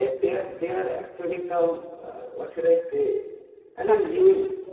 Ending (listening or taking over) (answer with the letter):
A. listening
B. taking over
A